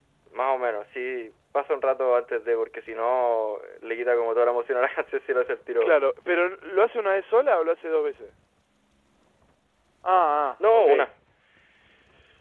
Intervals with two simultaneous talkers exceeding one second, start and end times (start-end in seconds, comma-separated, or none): none